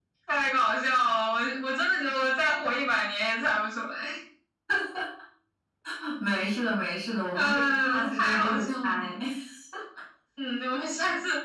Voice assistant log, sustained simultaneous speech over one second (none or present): present